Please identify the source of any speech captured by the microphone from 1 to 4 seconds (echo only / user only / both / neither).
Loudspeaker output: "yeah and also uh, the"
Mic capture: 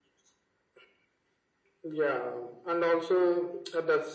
echo only